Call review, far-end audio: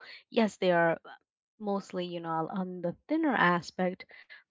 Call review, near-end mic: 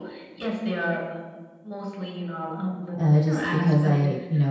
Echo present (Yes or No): Yes